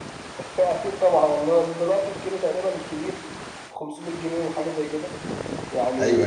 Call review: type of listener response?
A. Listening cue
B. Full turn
A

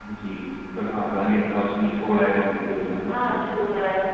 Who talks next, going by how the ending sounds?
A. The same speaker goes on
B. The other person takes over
B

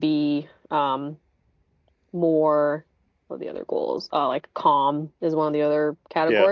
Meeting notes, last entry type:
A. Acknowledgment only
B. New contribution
A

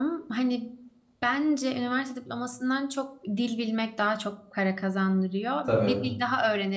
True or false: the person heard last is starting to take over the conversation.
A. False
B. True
A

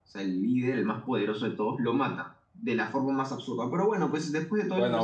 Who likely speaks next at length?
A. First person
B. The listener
B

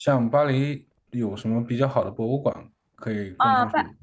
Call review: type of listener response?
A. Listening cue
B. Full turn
B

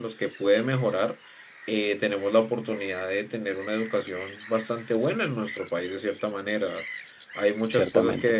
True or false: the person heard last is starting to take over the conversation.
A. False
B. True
A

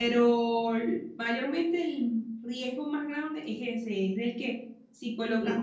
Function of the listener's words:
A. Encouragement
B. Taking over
A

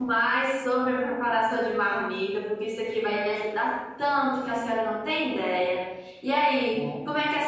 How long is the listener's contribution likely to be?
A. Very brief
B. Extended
A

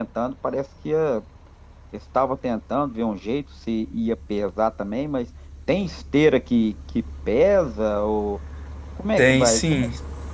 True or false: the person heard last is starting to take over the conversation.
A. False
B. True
B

